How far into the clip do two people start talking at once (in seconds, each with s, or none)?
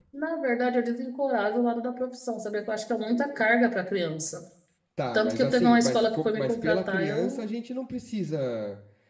5.1 s